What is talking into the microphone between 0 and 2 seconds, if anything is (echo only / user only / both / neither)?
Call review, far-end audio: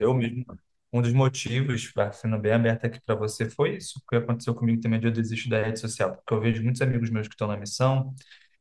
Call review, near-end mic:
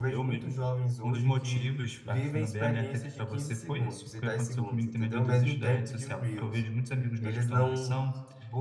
both